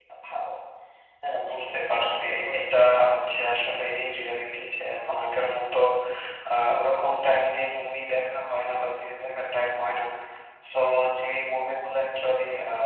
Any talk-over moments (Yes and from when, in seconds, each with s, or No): Yes, from 1.3 s